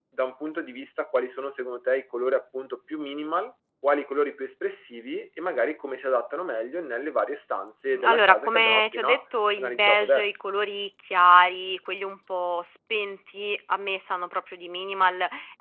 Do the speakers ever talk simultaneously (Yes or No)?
Yes